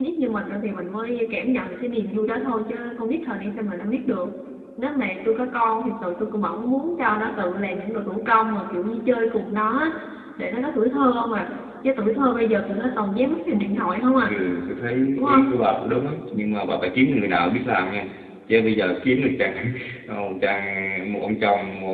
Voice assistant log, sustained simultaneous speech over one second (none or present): none